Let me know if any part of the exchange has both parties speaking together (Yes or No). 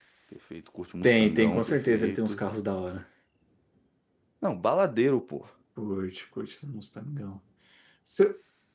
Yes